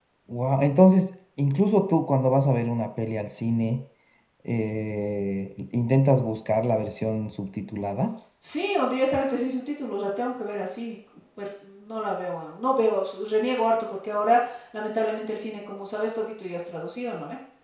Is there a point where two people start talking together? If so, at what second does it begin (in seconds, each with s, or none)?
none